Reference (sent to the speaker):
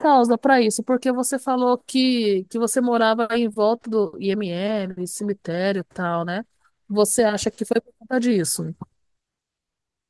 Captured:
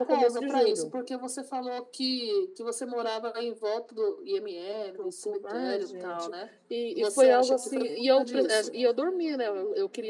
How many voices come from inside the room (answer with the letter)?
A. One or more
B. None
A